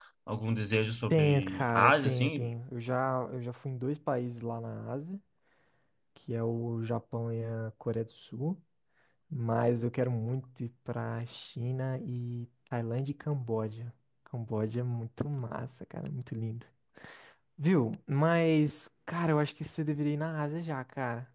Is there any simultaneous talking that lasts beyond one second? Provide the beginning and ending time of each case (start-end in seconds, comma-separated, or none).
1.1-2.5